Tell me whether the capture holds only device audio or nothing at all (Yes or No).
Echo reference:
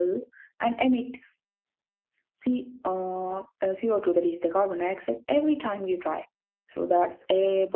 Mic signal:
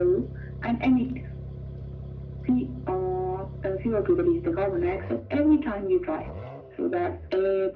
Yes